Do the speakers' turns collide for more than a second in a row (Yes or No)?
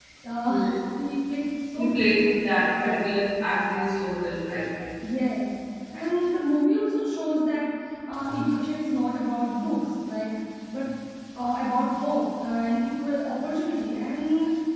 Yes